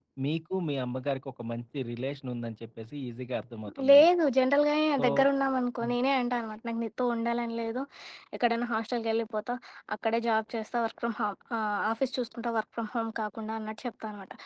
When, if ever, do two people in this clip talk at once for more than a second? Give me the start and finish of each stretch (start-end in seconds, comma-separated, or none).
none